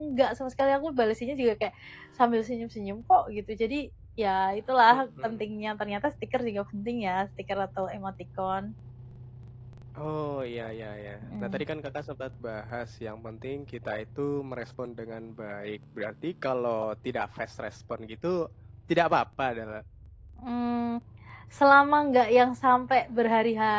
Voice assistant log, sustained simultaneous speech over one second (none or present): none